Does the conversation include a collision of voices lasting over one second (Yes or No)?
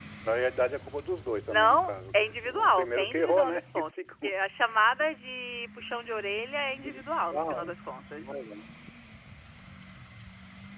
Yes